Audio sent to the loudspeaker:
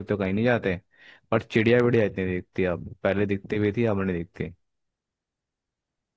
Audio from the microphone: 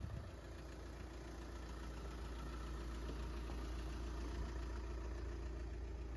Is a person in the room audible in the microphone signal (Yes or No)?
No